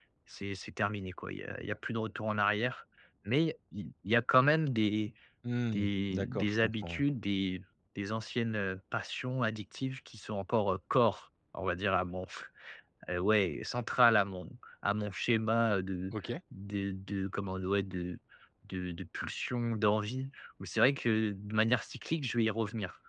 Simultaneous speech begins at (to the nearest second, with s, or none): 6 s